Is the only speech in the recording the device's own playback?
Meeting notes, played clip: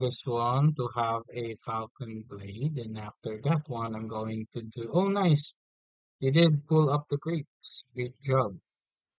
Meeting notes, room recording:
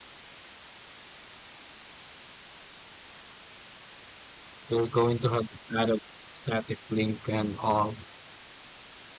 No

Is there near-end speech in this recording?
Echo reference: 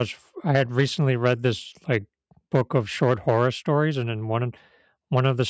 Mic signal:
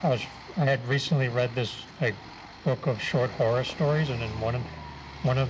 No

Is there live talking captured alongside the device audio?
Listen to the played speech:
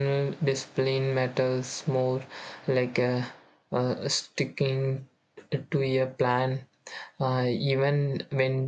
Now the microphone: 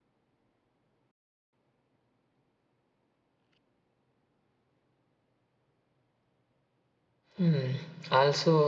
Yes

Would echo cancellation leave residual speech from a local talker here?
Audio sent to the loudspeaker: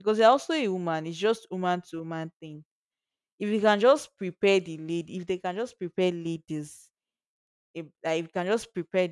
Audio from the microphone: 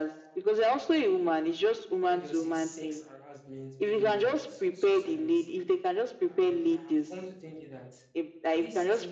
Yes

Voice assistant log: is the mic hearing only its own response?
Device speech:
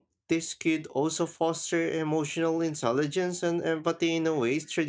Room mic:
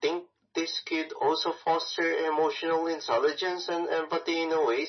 Yes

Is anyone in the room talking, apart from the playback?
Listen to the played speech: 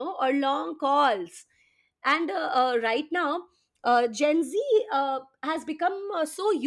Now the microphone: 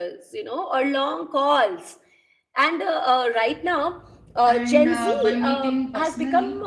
Yes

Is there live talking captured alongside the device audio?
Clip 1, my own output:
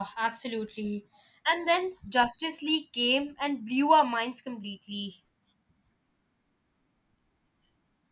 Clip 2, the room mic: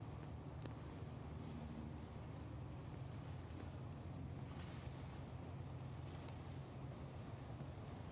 No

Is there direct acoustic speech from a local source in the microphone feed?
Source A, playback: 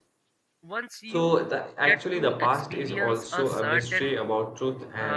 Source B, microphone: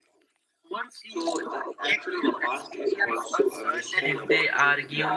Yes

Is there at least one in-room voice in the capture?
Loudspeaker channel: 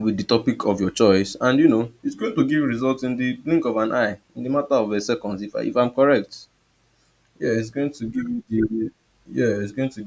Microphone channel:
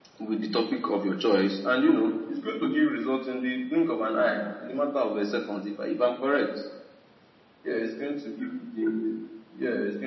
No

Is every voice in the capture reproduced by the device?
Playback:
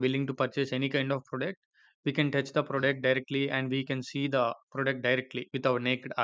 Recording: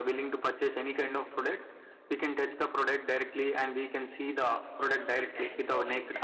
No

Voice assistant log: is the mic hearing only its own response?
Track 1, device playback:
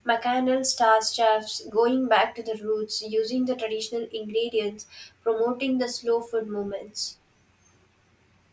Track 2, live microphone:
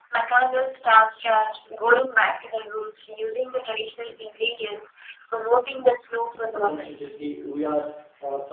No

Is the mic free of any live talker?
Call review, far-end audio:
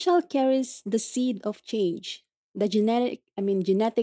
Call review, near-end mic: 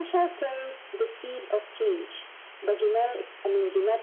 Yes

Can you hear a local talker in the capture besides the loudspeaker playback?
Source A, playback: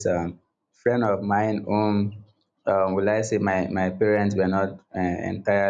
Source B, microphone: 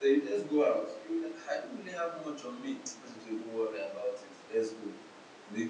Yes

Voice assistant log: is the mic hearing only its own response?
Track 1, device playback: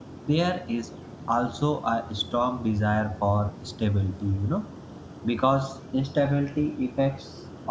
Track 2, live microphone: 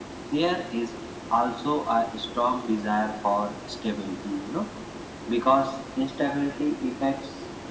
Yes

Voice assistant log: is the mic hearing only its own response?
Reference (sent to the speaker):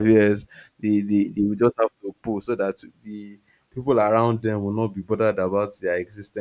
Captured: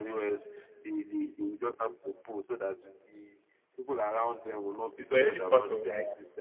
No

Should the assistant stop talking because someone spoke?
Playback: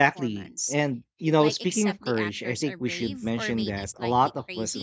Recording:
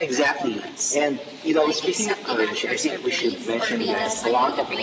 Yes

